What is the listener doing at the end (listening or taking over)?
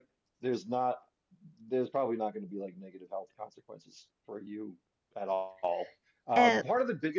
listening